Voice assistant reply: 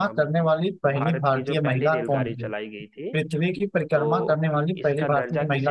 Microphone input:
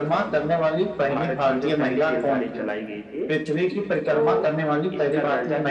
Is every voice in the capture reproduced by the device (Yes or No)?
Yes